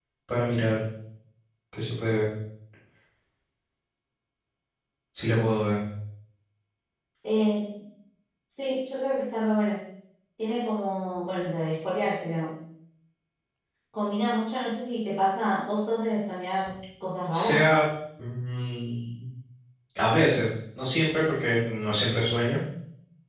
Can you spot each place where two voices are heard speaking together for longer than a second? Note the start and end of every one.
none

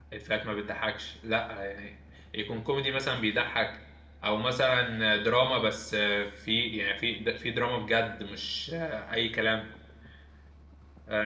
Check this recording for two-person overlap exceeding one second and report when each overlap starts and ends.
none

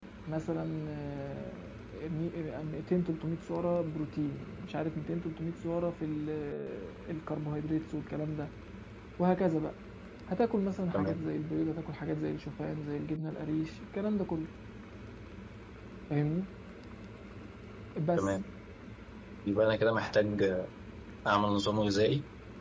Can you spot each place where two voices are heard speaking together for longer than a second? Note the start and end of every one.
none

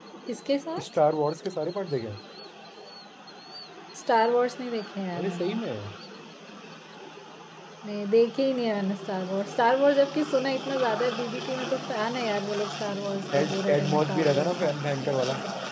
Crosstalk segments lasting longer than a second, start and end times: 13.3-14.7

